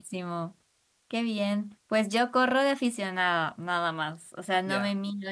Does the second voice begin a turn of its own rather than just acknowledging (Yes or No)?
No